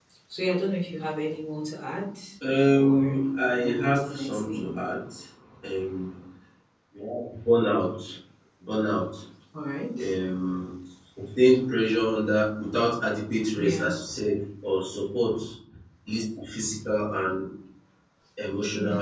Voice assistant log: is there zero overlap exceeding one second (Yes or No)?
No